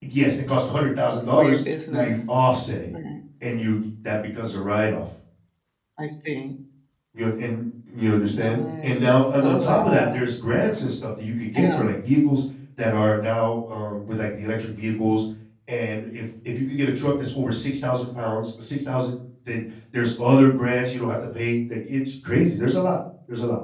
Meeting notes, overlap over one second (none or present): present